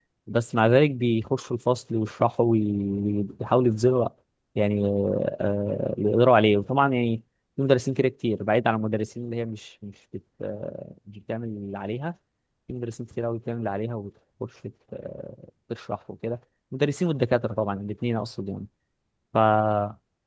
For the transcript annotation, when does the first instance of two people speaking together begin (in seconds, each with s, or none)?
none